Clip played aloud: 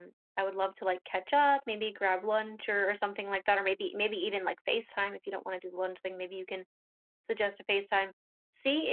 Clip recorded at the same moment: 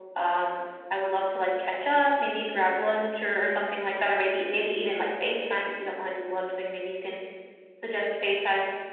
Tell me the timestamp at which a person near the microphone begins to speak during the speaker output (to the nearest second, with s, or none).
none